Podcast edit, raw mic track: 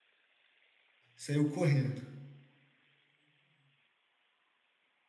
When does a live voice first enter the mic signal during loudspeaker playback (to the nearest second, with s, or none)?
1 s